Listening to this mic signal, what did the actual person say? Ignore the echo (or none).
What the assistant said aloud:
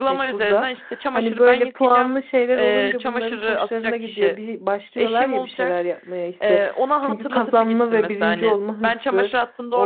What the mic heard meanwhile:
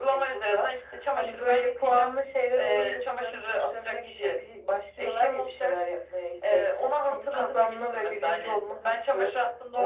none